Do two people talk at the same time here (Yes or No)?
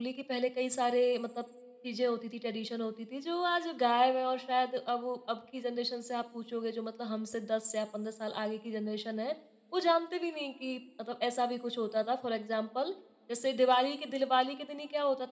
No